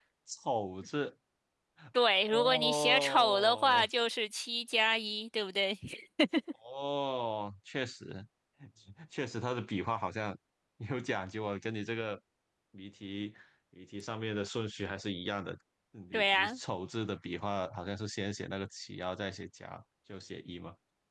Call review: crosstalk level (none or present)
present